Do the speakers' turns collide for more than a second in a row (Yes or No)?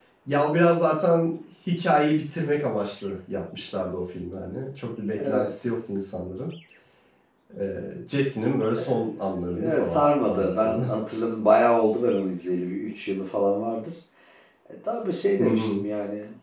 Yes